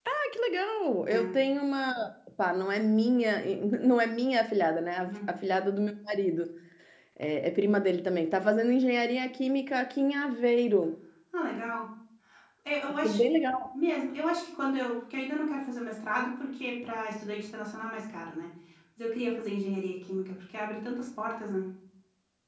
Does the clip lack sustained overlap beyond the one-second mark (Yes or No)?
Yes